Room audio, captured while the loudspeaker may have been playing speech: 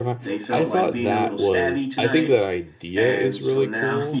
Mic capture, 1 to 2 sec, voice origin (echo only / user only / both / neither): both